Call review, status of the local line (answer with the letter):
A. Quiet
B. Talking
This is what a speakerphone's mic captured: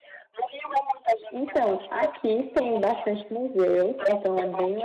B